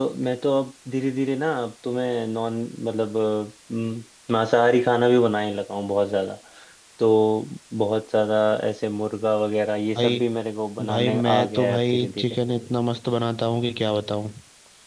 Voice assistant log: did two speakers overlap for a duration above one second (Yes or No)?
Yes